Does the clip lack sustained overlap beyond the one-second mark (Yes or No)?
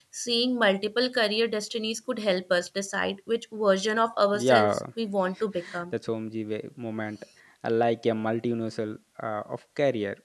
Yes